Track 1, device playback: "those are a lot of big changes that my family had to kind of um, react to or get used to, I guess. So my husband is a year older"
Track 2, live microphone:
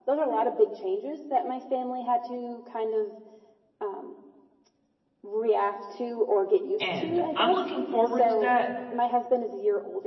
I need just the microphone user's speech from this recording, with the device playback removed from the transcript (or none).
and I'm looking forward to that,